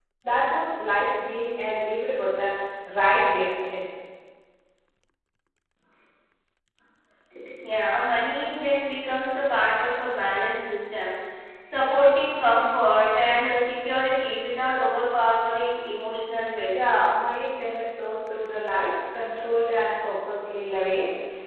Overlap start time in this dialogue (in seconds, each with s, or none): none